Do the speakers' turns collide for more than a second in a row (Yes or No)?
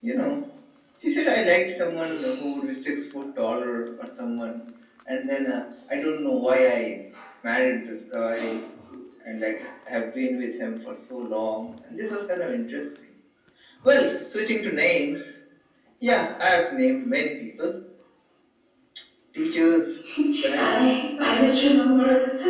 No